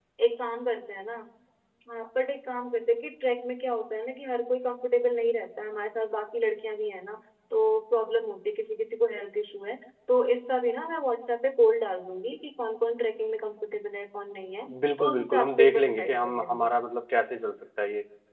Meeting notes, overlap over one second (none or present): present